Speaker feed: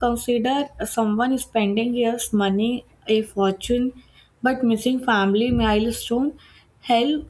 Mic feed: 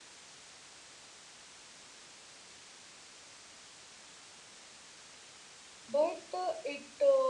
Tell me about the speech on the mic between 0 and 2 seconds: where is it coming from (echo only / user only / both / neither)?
neither